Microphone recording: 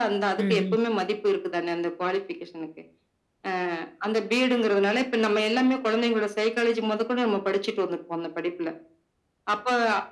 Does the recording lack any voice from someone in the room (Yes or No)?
No